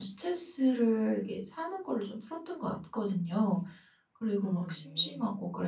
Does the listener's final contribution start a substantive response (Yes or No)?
No